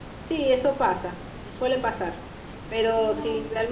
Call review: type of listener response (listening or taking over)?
listening